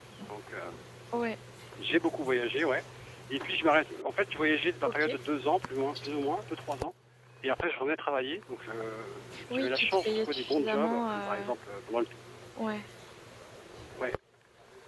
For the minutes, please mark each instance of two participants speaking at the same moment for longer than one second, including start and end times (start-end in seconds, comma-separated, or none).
9.5-11.5